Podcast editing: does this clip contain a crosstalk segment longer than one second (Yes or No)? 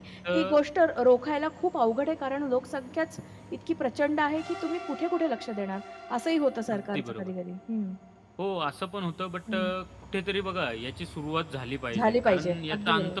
Yes